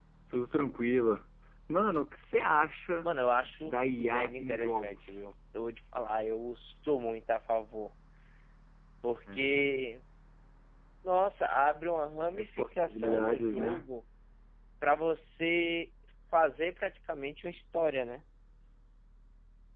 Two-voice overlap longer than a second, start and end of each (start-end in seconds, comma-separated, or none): 3.6-5.1, 12.3-13.8